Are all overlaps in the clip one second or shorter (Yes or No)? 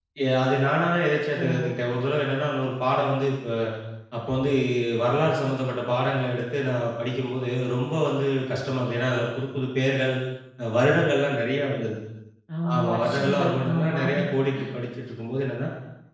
No